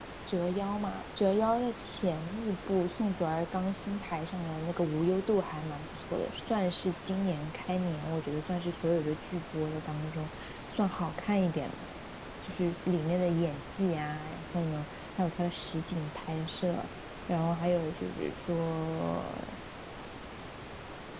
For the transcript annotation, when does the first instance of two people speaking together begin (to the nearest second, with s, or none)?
none